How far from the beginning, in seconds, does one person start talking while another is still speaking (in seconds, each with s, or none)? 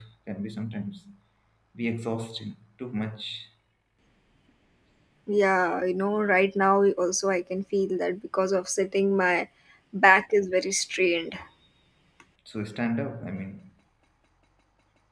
none